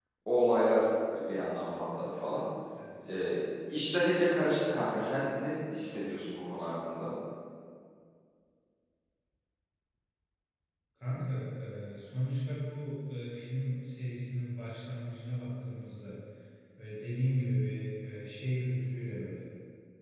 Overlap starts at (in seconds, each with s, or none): none